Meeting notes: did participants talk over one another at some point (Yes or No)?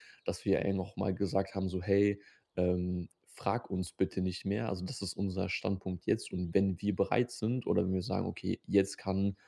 No